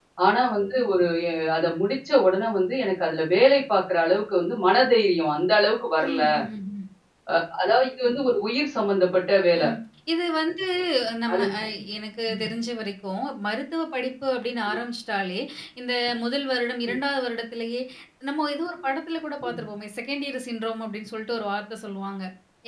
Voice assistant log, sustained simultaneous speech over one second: none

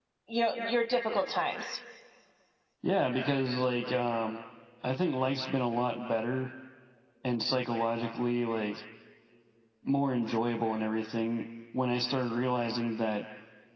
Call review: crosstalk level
none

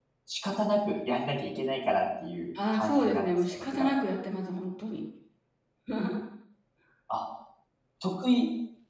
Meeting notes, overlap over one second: present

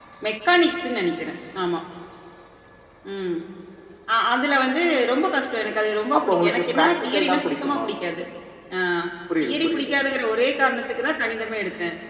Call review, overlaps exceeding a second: present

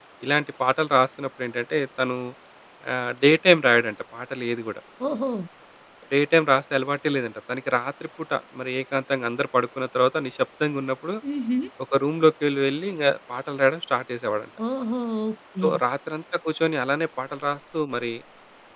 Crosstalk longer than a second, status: none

